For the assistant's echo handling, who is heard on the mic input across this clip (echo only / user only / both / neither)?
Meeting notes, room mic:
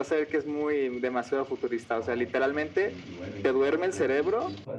both